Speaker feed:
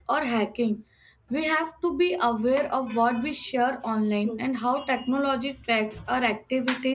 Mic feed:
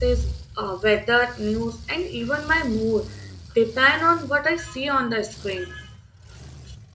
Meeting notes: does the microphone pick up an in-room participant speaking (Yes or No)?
Yes